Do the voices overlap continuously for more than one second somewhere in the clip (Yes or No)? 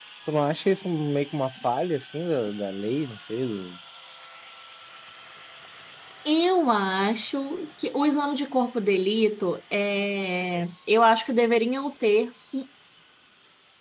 No